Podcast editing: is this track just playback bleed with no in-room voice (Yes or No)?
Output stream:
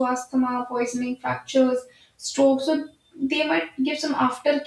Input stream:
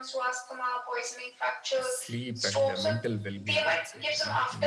No